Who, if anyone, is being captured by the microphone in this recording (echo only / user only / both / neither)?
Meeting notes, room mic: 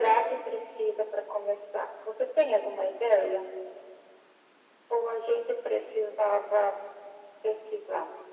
echo only